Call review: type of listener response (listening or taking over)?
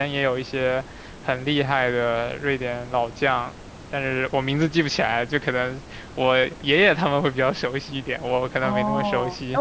taking over